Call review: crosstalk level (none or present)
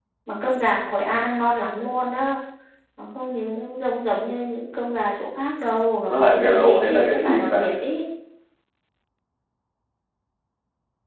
present